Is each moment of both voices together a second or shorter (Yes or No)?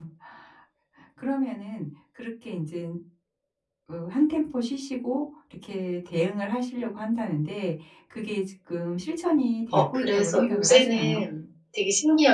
No